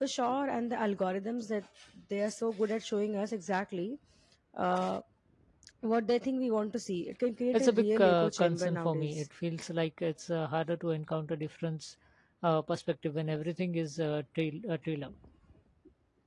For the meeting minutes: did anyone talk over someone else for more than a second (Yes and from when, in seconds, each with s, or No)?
Yes, from 7.5 s